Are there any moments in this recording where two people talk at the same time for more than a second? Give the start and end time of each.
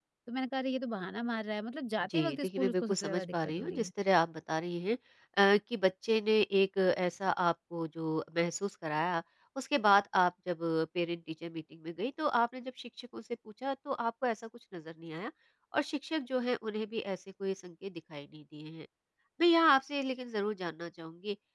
2.0-3.9

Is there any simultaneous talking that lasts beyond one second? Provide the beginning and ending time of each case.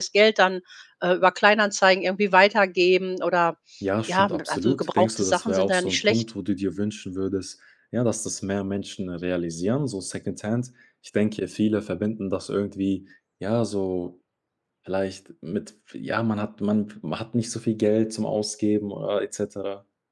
4.1-6.2

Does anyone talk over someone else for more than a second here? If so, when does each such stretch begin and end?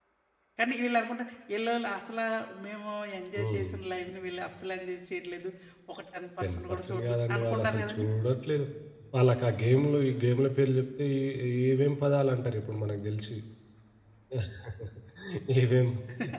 6.7-8.1

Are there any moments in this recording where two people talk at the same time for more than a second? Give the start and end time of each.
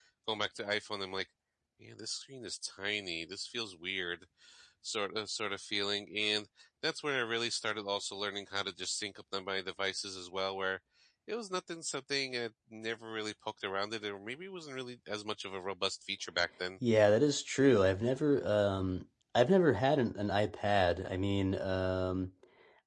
none

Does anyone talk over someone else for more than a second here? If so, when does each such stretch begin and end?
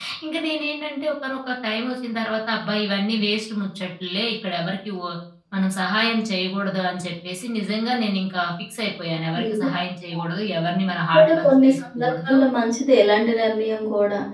11.1-12.4

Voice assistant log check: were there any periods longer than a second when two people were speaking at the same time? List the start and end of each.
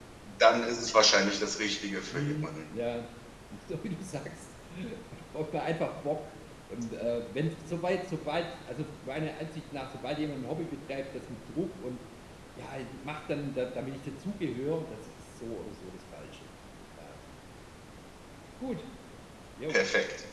none

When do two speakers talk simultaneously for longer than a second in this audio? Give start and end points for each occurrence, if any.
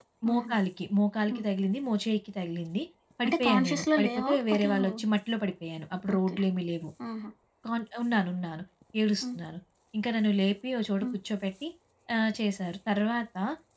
3.2-4.9

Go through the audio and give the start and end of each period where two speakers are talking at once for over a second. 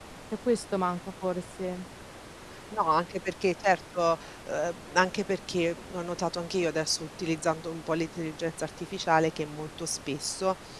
none

